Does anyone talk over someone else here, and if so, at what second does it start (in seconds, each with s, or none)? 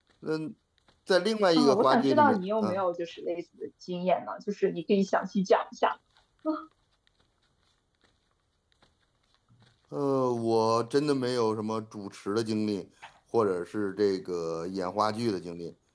1.6 s